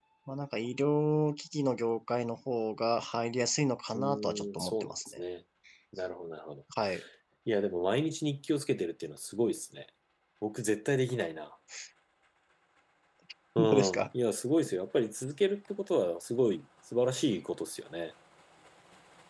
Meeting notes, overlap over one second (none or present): present